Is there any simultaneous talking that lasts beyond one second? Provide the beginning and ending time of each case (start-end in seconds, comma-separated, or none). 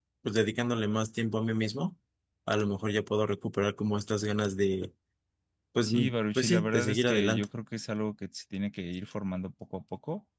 5.8-7.4